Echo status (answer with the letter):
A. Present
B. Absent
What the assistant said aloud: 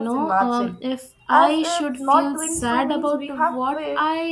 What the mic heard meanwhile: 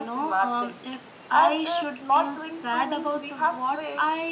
A